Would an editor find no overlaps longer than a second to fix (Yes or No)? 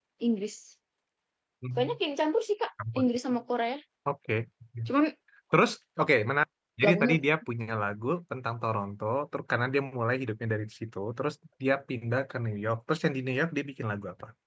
Yes